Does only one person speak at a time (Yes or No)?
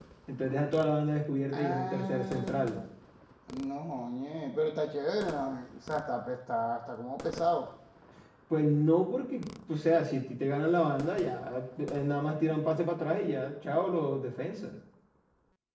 No